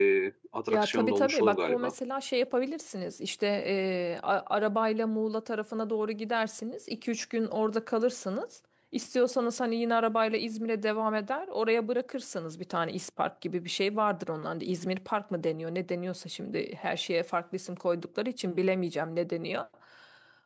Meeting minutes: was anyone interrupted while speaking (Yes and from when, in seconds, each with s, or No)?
Yes, from 0.7 s